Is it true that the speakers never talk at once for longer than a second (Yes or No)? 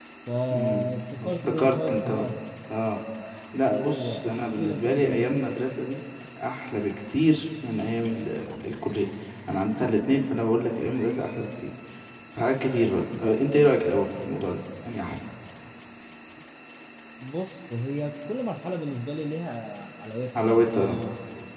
No